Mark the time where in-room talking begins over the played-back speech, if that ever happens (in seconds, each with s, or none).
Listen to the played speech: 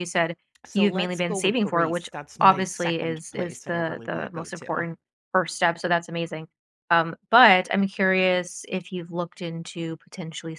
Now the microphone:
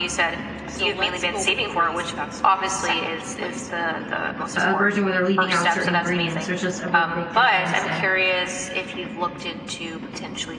4.6 s